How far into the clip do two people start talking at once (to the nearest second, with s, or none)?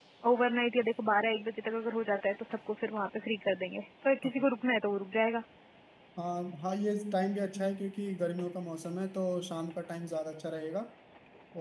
none